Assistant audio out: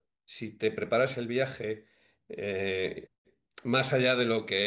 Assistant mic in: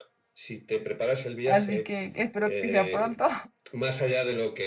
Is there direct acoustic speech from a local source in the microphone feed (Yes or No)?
Yes